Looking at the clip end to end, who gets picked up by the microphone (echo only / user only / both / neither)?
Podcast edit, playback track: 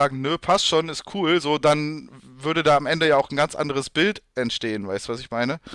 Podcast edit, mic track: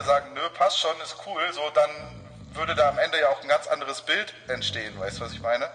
echo only